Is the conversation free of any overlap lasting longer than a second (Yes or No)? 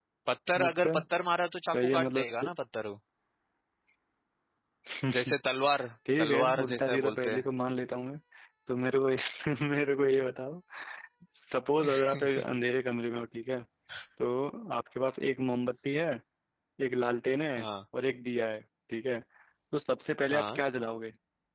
No